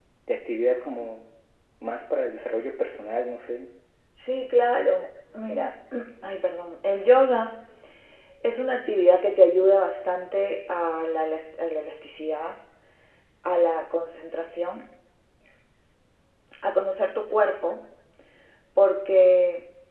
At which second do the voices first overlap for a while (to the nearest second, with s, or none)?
none